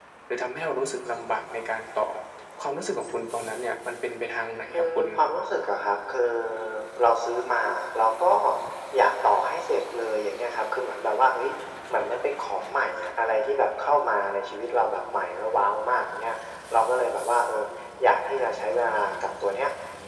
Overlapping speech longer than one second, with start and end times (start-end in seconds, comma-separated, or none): none